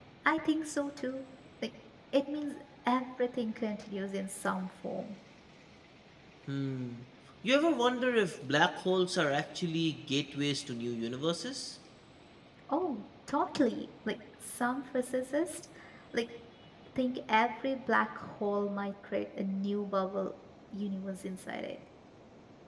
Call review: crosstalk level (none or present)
none